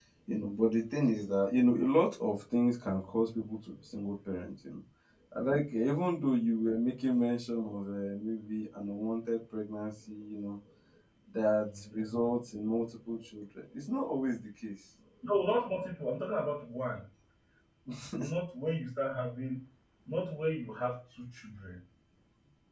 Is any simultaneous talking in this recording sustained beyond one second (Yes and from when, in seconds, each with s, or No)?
No